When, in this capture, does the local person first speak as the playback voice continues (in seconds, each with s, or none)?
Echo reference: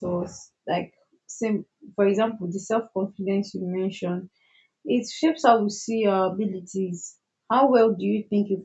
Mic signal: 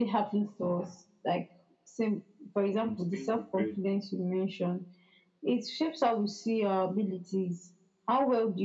2.8 s